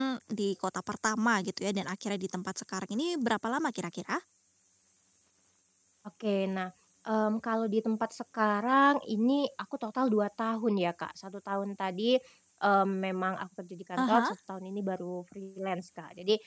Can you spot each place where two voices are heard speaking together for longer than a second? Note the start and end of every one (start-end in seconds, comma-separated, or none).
none